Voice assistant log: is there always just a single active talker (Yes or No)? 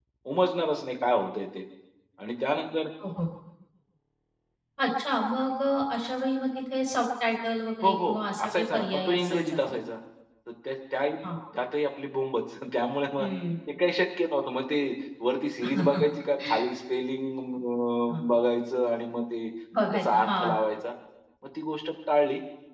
No